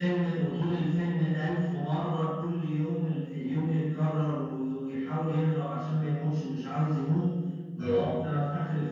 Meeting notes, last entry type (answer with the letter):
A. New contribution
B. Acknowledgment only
B